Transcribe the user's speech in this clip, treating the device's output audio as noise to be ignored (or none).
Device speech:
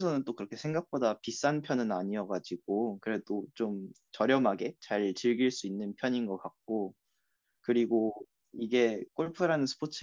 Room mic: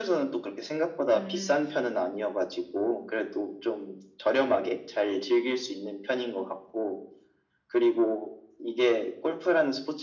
음.